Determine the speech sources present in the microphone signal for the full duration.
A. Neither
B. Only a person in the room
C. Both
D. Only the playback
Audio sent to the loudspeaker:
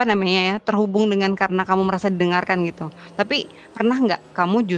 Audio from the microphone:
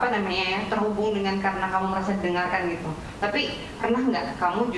D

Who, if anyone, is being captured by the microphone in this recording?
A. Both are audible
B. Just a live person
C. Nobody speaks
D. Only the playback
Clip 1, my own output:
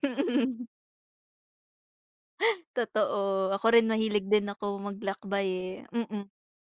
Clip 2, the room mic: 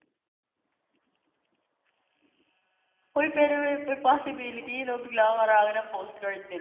B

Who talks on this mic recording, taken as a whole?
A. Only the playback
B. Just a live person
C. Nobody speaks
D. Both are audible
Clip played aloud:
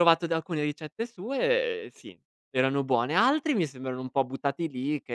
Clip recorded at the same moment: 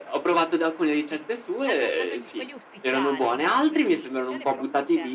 D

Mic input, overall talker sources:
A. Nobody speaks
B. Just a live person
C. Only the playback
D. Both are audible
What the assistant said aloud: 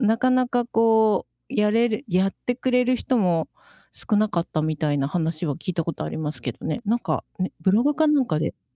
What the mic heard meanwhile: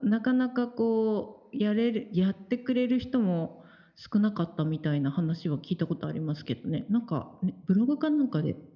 C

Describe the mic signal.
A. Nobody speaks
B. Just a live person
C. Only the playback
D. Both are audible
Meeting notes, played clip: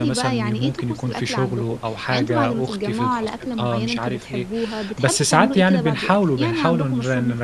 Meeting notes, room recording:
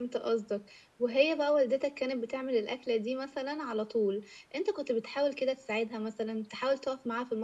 B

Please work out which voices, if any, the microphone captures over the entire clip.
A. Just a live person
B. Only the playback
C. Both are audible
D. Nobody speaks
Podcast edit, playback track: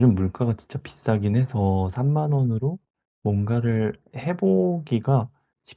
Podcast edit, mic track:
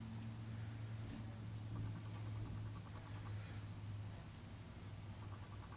D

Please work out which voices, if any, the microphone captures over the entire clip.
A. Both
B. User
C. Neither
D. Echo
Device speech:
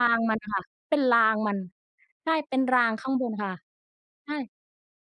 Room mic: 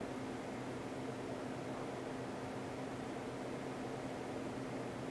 C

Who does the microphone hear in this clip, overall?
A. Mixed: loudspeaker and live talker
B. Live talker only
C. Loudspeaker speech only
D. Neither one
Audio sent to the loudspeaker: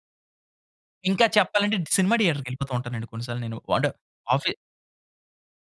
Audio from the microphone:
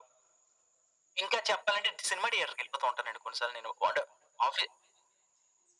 C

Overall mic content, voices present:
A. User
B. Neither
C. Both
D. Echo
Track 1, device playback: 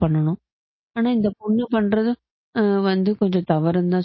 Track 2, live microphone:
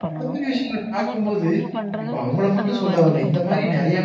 C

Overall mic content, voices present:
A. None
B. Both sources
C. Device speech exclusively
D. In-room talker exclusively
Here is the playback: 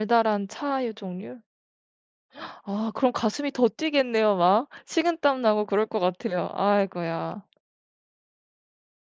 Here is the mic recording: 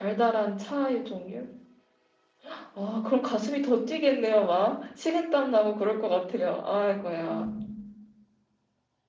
B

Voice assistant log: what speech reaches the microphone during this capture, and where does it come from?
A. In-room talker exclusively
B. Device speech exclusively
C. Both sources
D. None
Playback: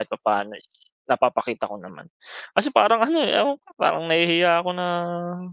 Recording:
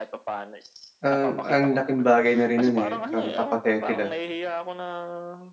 C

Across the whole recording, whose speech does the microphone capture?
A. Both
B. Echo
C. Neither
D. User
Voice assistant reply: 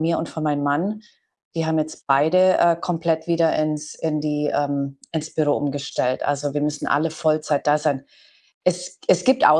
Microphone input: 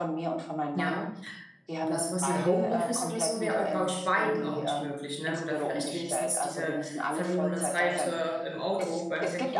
A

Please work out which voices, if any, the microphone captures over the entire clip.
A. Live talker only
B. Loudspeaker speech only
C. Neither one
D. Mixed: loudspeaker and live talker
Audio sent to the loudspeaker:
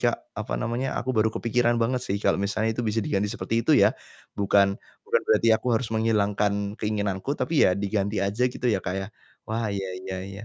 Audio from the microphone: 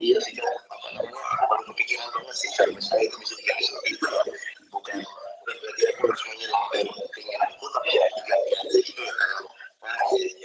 B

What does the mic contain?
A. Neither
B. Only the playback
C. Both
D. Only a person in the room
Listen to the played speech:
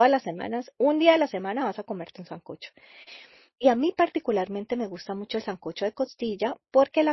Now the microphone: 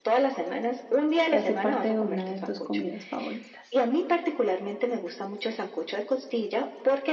C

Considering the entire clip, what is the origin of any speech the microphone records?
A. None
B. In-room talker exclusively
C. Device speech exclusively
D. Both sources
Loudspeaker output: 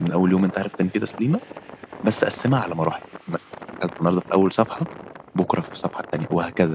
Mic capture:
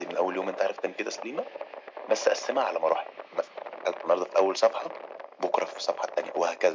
C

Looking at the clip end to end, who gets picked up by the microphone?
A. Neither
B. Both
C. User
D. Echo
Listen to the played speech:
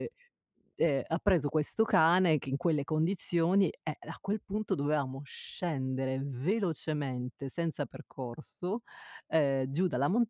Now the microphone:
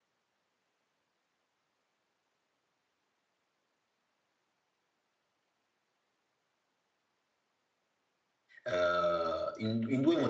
C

